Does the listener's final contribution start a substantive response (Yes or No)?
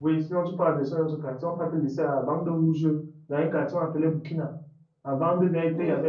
No